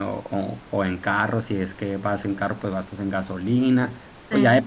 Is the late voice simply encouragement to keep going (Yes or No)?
Yes